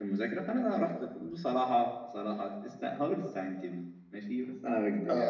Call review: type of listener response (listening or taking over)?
taking over